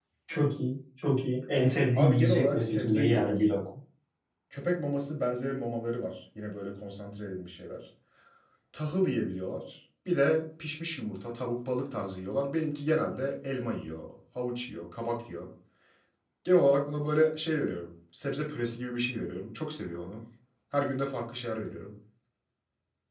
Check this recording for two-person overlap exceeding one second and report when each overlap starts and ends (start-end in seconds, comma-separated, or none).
1.9-3.4